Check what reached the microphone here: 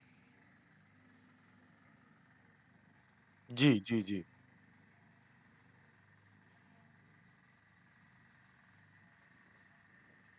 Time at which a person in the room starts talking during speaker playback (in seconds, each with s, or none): 3.6 s